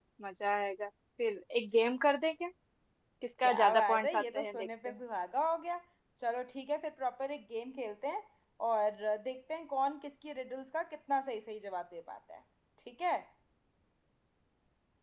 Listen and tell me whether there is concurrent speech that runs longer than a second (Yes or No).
Yes